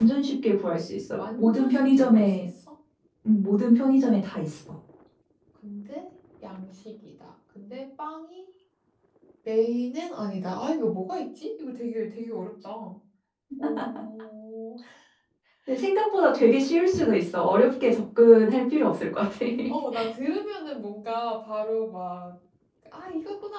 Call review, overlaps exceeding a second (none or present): present